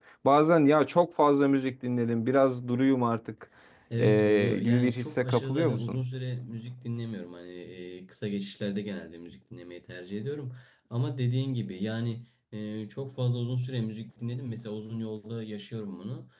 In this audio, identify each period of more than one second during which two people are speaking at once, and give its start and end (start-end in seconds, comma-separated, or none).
4.0-6.0